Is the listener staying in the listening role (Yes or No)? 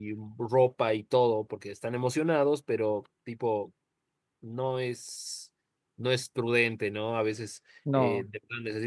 Yes